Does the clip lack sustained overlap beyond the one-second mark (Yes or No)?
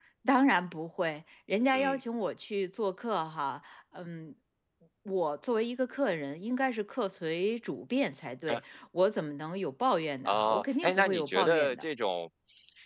No